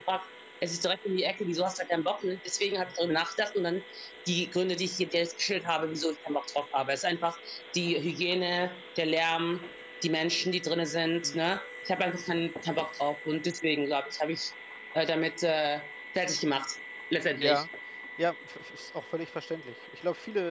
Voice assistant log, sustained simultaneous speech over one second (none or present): none